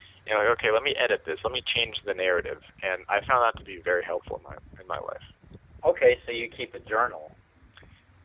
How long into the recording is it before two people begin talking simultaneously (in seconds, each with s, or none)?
none